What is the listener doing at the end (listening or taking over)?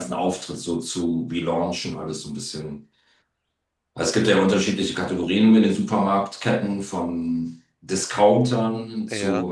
listening